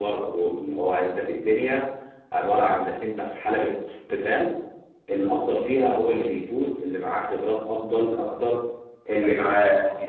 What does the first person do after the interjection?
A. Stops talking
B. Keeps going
A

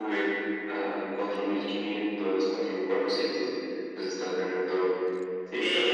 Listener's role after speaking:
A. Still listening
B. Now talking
B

